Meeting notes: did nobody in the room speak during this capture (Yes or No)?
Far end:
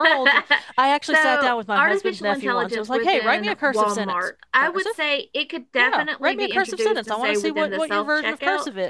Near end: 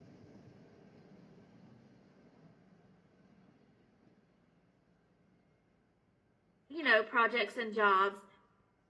No